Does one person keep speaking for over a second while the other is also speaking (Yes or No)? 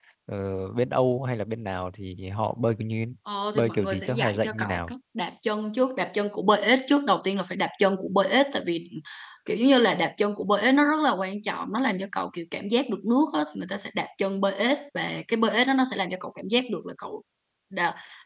Yes